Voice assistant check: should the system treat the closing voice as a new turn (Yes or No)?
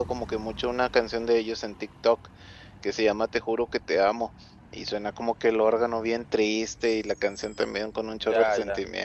Yes